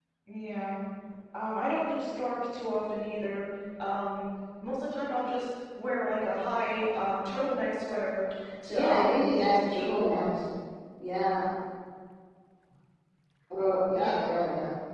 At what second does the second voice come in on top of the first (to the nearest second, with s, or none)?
9 s